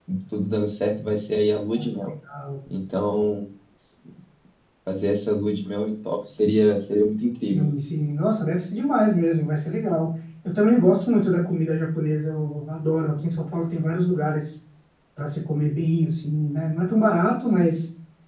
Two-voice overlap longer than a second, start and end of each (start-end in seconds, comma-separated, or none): none